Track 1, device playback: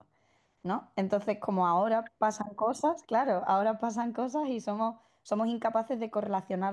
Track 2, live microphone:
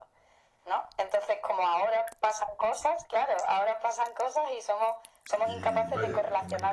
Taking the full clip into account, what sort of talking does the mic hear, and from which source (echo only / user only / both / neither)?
both